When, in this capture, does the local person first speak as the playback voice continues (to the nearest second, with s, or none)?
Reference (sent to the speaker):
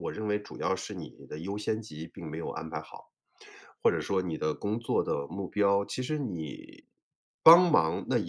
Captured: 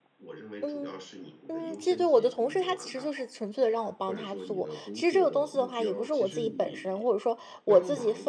1 s